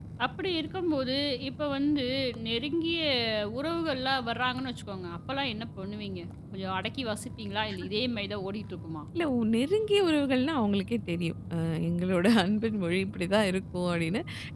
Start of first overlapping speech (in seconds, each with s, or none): none